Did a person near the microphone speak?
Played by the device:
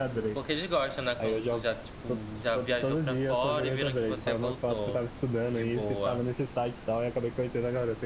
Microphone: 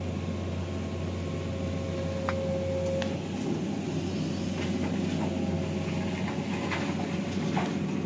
No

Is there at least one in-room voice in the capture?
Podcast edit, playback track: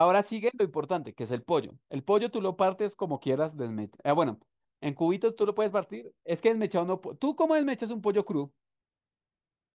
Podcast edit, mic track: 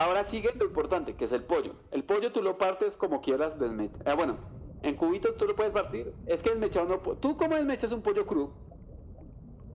No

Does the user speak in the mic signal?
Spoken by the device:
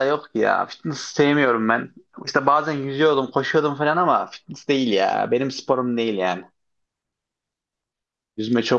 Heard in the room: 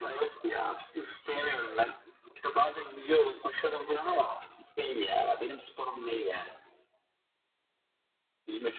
No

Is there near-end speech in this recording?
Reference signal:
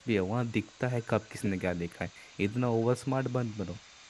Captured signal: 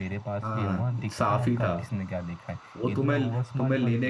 Yes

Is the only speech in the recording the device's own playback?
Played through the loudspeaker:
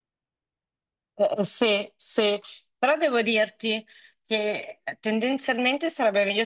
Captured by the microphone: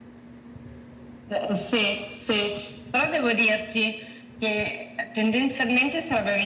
Yes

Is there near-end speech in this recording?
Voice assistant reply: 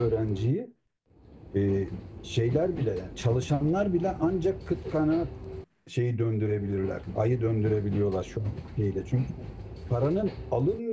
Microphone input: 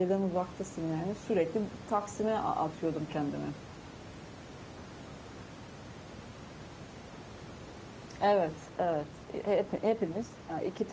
Yes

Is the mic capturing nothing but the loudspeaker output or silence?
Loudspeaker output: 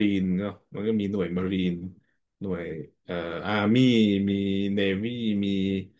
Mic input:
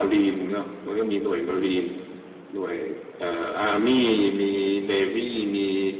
Yes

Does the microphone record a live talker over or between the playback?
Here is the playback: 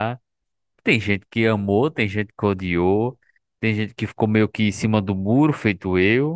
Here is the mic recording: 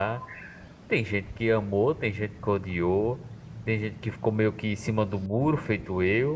No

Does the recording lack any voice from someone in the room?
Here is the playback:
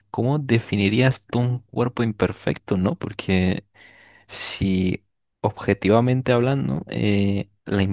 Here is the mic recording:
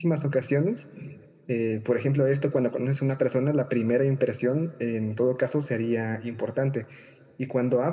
No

